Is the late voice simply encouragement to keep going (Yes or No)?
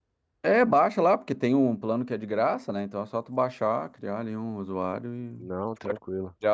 No